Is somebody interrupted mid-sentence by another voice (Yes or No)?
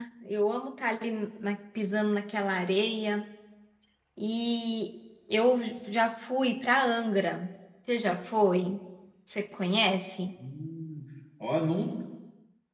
No